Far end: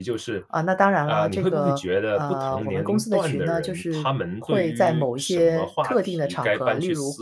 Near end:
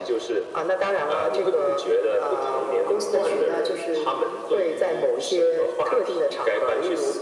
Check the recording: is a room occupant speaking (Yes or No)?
No